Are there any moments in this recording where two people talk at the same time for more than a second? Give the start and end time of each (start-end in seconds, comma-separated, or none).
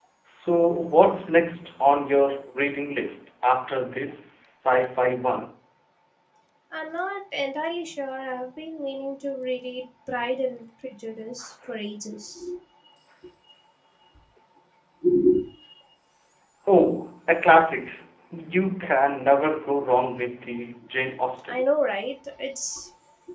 none